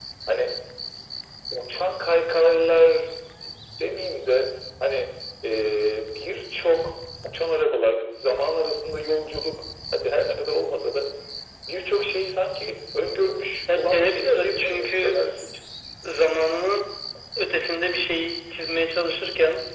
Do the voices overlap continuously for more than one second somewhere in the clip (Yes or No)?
Yes